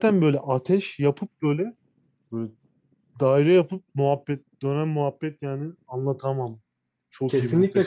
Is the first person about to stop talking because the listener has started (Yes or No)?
Yes